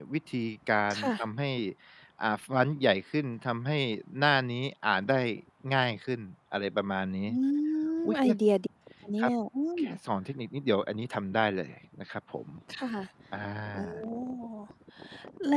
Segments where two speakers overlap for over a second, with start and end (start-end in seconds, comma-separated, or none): none